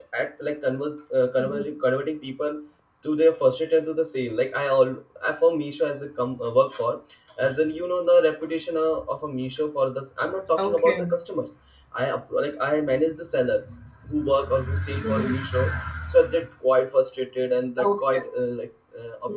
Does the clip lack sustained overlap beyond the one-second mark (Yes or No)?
Yes